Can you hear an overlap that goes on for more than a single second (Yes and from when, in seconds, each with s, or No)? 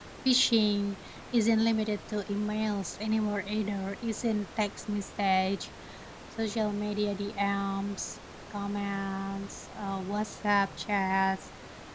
No